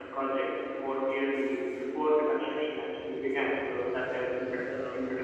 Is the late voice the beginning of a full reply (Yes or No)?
No